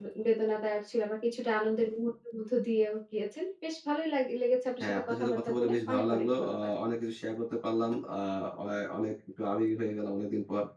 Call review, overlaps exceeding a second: present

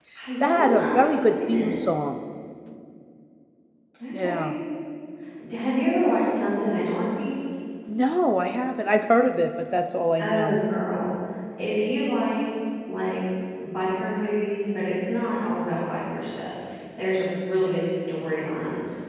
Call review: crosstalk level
present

